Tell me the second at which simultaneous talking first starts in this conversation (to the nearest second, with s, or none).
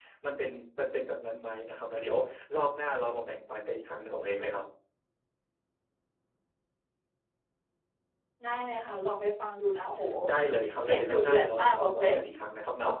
11 s